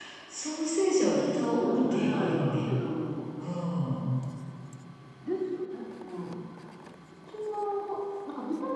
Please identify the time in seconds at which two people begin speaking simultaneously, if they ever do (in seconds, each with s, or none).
1.1 s